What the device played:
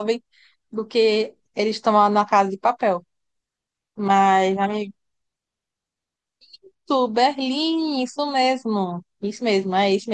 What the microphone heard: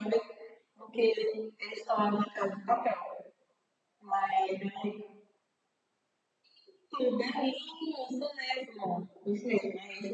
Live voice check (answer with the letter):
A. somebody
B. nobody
B